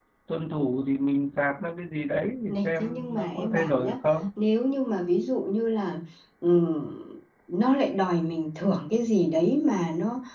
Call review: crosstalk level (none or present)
present